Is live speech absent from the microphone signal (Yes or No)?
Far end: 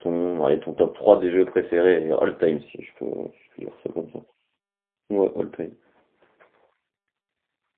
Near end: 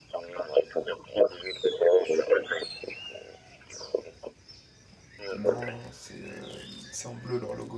No